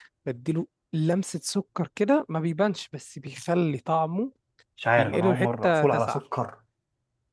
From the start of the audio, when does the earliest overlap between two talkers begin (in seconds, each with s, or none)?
5.0 s